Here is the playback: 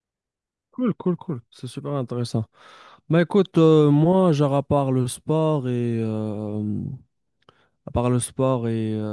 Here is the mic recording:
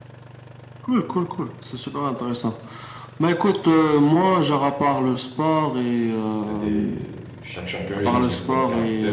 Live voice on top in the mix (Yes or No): No